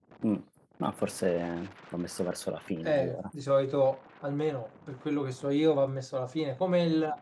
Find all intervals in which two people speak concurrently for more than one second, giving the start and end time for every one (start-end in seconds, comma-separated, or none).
none